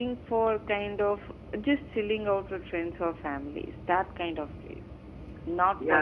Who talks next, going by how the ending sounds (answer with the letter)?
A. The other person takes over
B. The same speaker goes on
A